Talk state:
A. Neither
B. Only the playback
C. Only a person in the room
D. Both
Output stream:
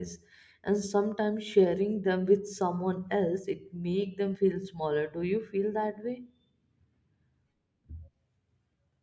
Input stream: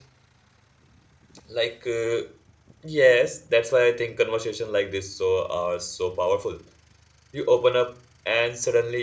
C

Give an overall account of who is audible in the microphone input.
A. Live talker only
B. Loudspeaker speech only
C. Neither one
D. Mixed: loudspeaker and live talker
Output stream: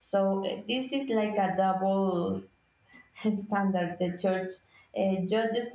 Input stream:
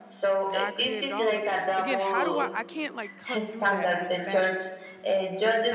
D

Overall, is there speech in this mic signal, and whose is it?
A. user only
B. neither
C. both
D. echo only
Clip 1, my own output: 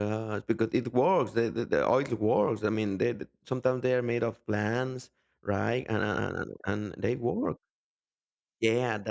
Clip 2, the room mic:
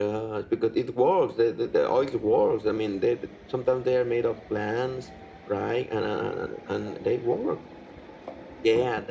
D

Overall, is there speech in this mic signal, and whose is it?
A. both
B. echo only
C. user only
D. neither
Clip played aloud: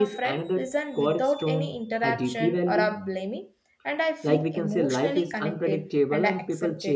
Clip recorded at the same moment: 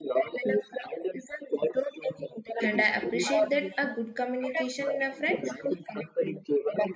A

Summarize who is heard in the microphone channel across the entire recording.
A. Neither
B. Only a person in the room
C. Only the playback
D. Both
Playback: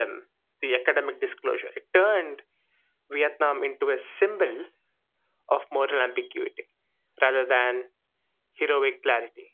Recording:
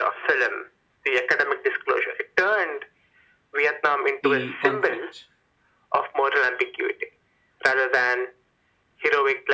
D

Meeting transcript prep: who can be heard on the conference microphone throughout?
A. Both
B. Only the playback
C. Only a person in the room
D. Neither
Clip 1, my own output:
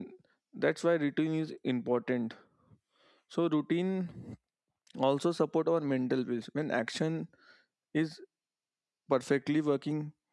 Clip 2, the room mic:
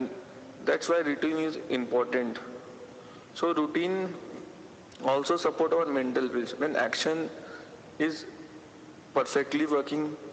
B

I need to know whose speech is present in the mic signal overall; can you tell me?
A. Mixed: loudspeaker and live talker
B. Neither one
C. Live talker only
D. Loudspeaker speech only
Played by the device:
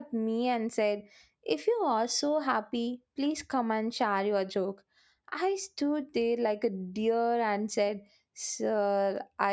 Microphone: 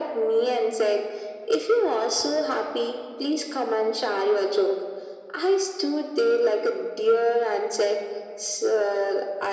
D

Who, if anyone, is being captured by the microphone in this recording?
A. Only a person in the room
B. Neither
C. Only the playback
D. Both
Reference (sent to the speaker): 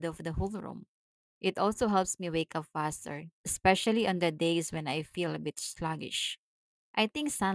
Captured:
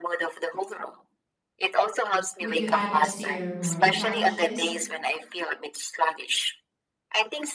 D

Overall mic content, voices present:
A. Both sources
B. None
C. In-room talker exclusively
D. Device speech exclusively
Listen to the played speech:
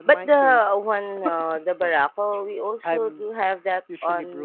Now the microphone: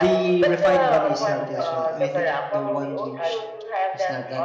A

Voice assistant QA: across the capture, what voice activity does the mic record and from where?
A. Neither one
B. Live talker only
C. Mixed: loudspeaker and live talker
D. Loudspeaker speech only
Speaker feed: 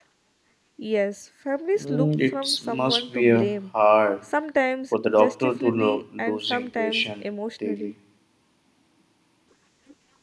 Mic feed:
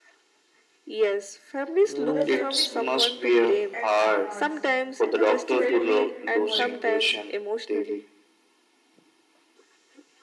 C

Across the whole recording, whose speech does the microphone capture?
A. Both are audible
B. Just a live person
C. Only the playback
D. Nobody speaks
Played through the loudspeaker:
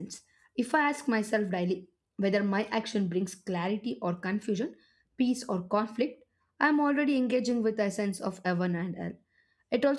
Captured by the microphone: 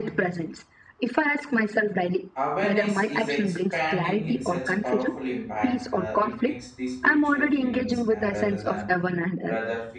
A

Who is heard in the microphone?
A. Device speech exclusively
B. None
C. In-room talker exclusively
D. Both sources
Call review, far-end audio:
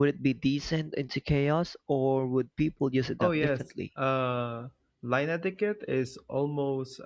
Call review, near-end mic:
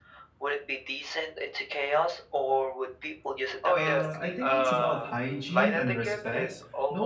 D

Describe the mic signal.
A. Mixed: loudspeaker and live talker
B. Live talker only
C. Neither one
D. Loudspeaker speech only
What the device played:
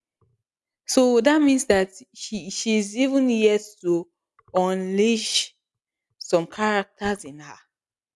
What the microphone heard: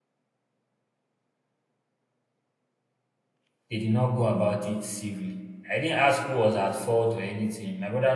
B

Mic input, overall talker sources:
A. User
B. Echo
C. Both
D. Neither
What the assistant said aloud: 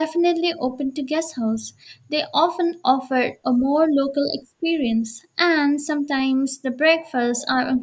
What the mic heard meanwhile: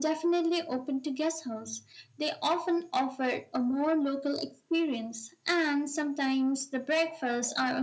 B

